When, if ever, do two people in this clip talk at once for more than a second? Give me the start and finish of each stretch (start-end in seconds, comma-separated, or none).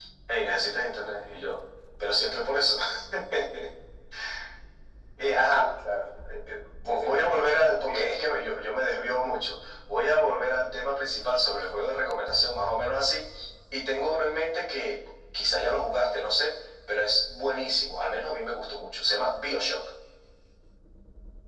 6.8-8.1